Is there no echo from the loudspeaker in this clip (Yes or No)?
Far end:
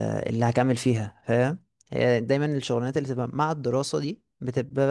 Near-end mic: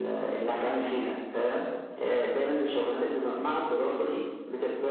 No